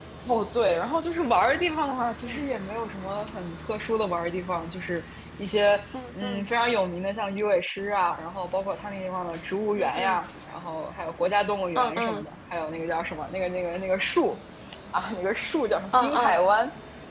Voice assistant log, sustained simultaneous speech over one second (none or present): none